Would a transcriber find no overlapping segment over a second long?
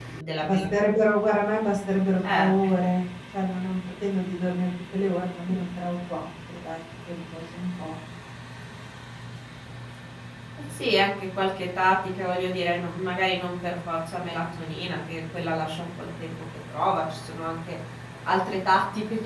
Yes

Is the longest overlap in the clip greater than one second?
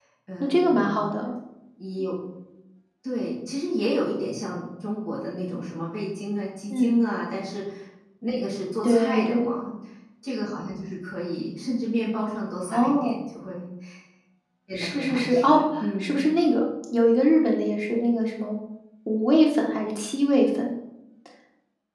Yes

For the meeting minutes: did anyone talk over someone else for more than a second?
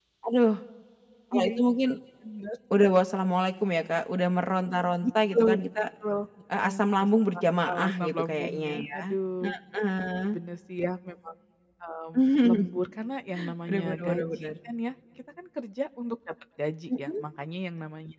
Yes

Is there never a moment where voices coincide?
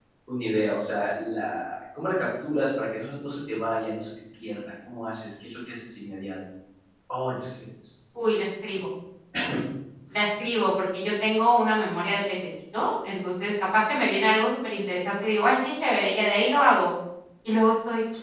Yes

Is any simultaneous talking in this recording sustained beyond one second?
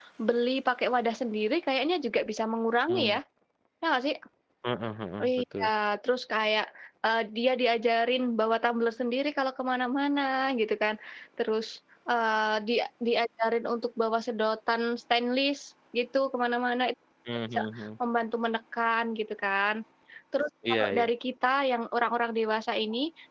No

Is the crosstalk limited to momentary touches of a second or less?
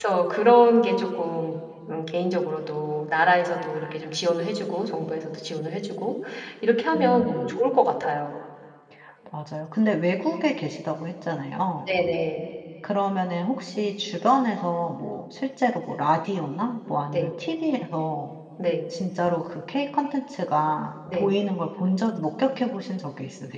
Yes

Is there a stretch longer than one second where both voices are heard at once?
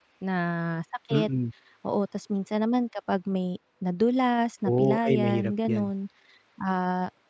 Yes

